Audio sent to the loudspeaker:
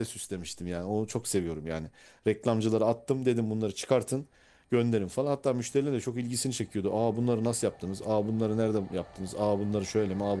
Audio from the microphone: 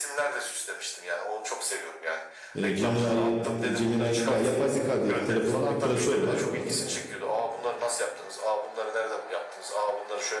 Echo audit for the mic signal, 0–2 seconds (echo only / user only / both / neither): echo only